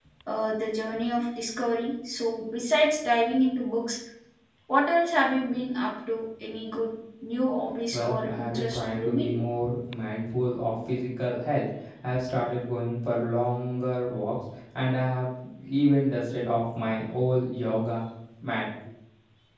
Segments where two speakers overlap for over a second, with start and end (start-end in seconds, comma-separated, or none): 7.9-9.3